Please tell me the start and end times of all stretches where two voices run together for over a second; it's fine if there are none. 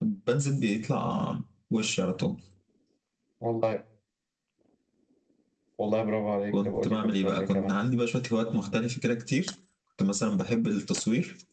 6.5-7.8

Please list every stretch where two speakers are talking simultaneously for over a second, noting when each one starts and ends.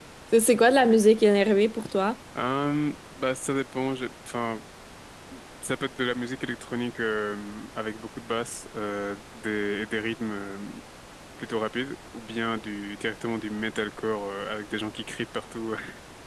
none

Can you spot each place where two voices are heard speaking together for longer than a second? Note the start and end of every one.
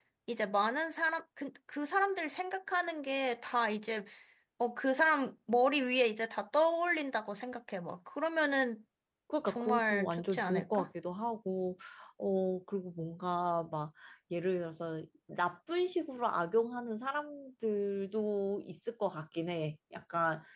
9.5-10.9

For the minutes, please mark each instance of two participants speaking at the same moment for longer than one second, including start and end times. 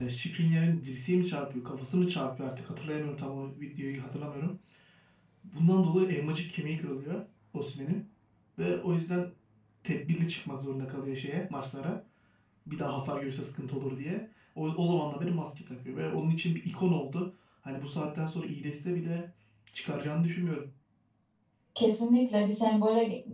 none

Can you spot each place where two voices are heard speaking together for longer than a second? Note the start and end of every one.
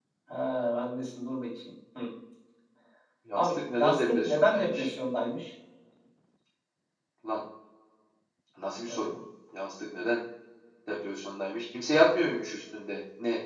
3.3-4.9

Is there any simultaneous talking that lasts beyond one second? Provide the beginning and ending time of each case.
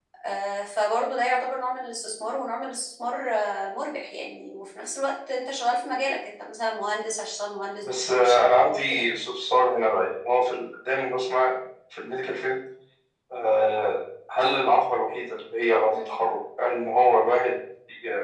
7.8-9.1

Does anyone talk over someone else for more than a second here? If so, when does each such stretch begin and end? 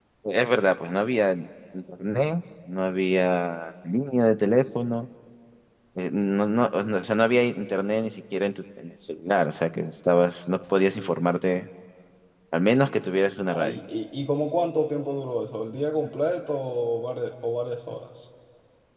none

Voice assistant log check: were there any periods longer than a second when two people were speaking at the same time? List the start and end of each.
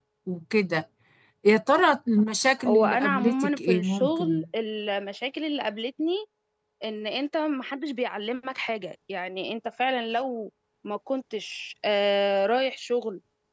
2.7-4.5

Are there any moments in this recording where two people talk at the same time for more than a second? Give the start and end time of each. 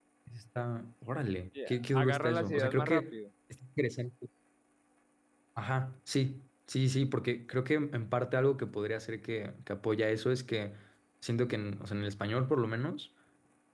1.7-3.1

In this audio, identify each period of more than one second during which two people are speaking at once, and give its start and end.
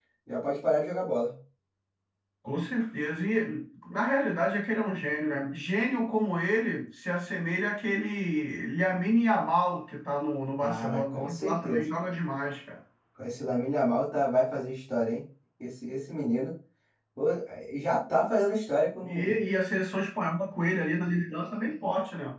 10.6-11.8

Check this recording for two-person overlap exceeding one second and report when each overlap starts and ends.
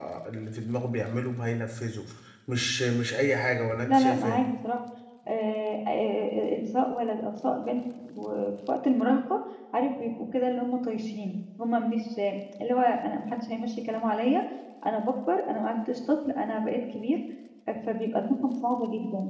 none

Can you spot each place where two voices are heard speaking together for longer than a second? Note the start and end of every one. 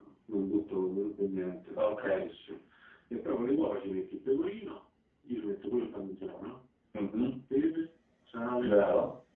none

